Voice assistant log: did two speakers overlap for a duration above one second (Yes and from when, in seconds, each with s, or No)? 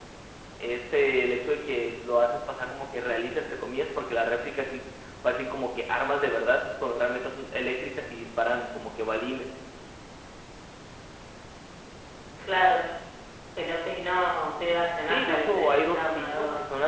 Yes, from 15.0 s